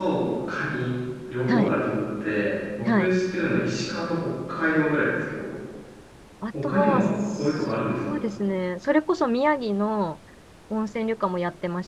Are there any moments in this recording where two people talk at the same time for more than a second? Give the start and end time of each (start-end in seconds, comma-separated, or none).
6.6-8.2